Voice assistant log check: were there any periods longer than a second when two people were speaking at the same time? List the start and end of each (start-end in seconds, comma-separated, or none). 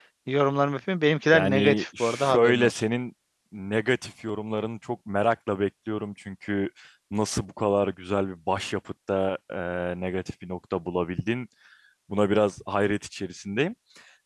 1.3-2.8